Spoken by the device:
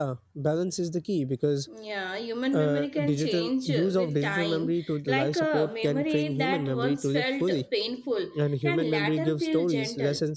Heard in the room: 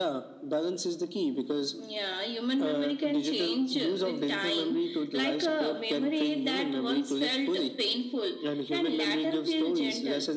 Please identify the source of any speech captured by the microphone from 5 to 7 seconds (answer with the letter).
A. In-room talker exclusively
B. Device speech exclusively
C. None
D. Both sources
B